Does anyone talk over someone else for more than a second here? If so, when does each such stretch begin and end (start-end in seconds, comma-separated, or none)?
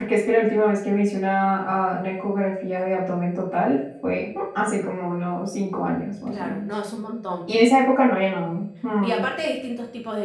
none